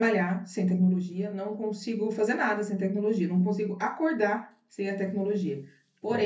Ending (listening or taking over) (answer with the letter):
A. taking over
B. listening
B